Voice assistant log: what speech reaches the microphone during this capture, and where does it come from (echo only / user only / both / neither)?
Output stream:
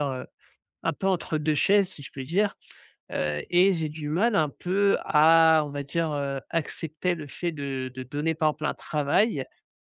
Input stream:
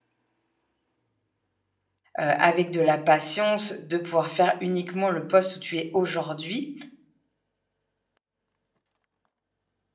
user only